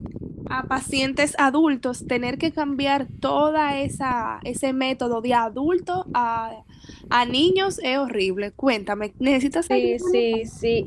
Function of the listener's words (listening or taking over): taking over